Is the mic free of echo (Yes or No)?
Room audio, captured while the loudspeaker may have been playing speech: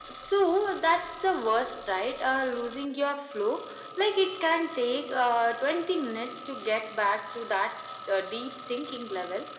No